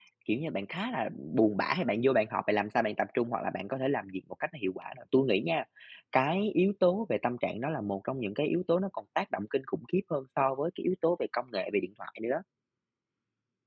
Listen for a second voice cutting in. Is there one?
No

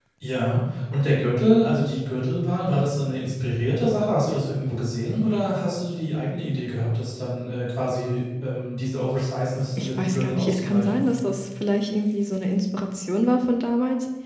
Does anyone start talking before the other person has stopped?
Yes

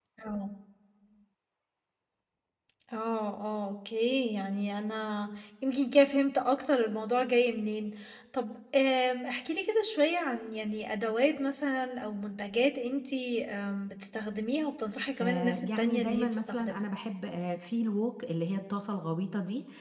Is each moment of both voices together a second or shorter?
No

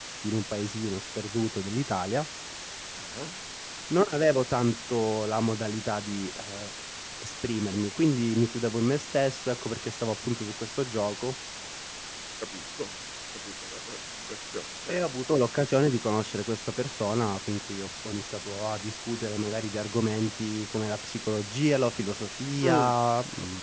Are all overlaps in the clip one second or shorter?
Yes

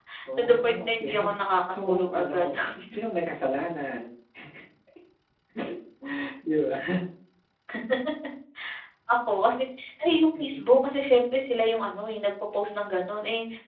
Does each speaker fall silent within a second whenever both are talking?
No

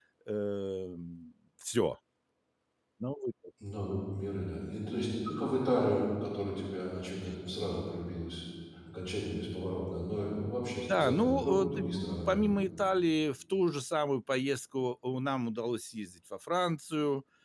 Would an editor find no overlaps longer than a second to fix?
No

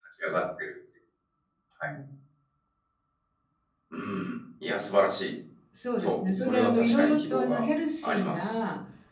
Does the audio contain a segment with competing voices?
Yes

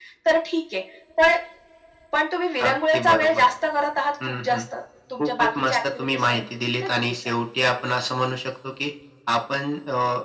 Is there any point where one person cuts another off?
Yes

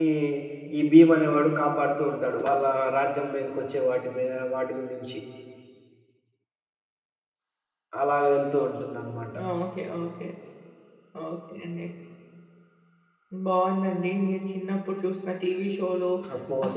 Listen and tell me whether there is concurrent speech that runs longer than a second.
No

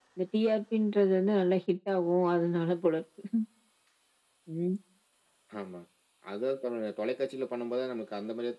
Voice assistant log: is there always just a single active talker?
Yes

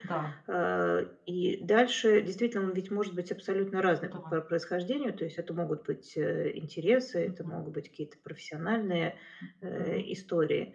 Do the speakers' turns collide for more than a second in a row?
No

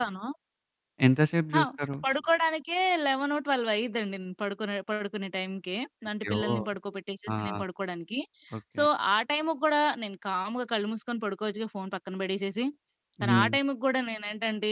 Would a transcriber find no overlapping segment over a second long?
Yes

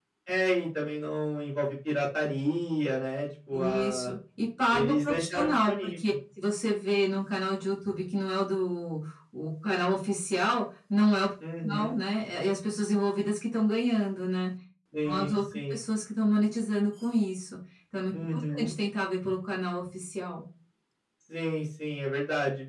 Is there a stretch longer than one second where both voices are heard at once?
Yes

